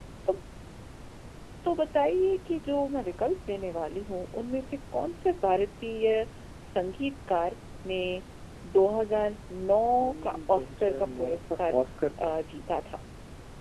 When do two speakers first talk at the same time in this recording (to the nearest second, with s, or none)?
10 s